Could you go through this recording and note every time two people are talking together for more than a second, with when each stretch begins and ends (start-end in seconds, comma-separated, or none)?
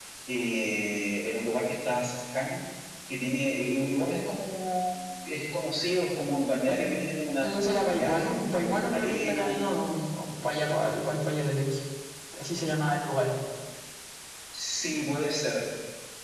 7.5-9.8